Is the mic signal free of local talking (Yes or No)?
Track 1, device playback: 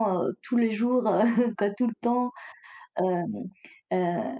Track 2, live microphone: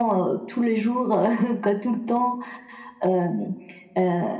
Yes